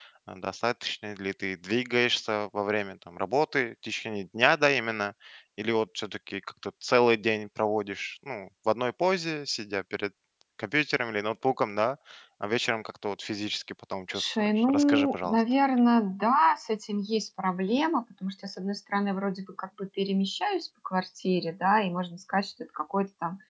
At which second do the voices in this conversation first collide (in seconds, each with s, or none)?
14.1 s